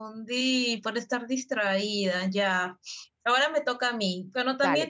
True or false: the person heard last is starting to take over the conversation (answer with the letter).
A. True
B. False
B